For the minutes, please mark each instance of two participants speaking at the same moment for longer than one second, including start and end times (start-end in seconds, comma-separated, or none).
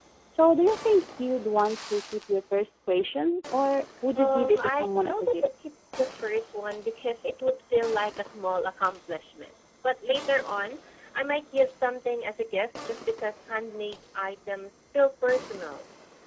4.2-5.4